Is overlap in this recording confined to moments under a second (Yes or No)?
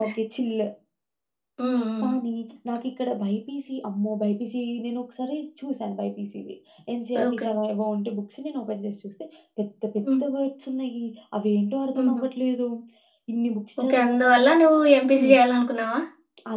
No